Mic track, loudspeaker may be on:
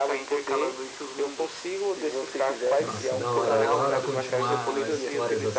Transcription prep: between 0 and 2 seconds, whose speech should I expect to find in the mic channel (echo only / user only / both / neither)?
echo only